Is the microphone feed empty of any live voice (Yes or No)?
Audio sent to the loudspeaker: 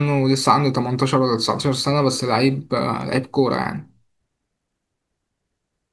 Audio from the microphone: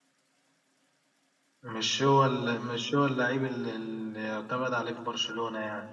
No